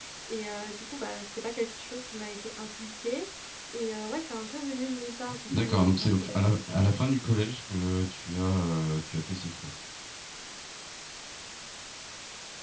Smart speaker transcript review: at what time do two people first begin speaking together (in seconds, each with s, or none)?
5.5 s